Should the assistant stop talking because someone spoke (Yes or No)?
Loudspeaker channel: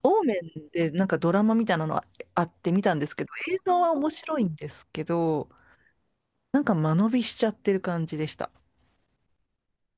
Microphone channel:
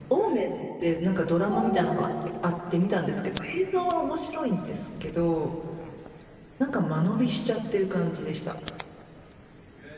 Yes